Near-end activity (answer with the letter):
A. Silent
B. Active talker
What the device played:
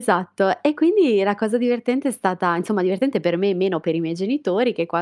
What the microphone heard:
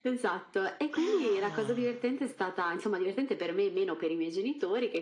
B